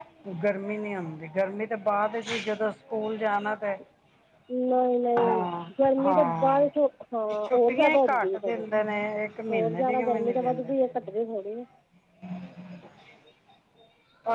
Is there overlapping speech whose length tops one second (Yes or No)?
Yes